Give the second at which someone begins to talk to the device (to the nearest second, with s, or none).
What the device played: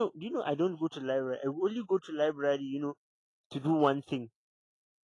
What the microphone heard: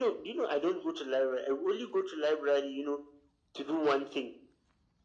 none